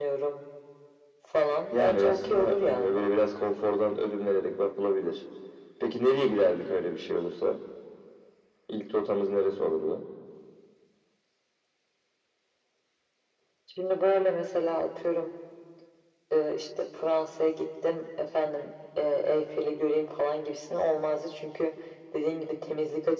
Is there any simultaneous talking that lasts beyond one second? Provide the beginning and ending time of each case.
1.7-3.0

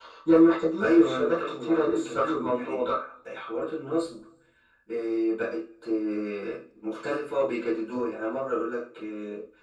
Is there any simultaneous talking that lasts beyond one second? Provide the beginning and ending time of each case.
0.8-2.8

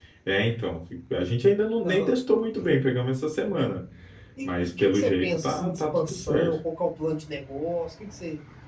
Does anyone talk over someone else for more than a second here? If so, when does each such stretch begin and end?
4.4-6.6

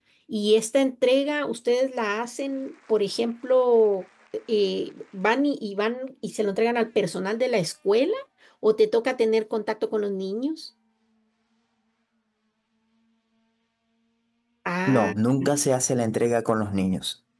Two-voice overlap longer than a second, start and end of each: none

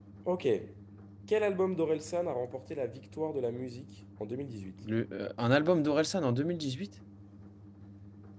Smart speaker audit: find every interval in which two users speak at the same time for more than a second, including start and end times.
none

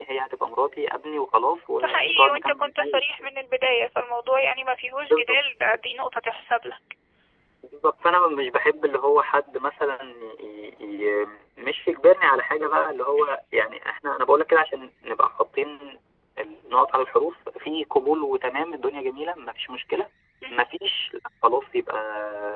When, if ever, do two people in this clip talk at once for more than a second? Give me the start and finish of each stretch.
1.8-3.0

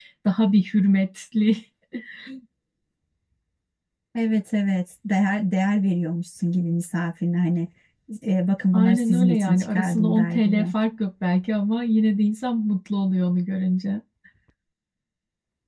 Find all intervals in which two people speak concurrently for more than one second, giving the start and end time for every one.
8.7-10.6

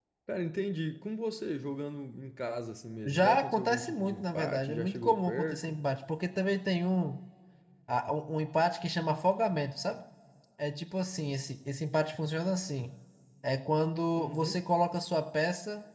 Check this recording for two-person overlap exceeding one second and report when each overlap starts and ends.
3.0-5.7

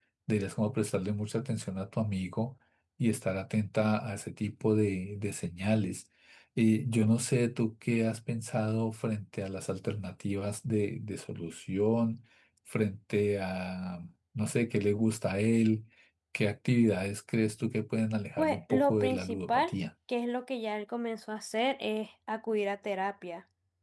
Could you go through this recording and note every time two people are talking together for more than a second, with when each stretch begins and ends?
18.4-19.7

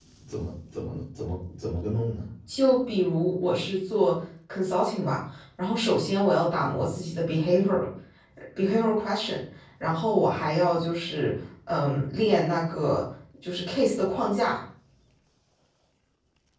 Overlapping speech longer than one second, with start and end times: none

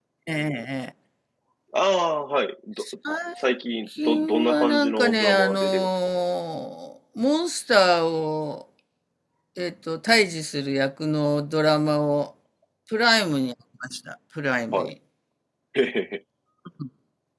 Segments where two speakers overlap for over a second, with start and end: 4.0-5.9

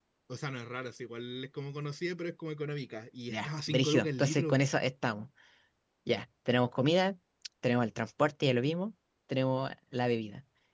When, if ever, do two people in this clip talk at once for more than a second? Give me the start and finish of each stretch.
3.3-4.6

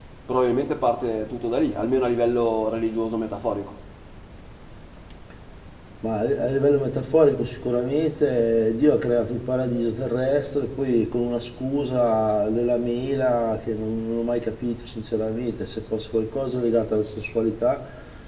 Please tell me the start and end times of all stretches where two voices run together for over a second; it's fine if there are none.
none

